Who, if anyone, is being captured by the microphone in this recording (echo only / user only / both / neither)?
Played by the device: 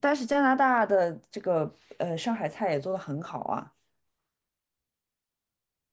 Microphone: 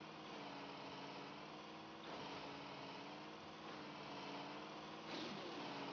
neither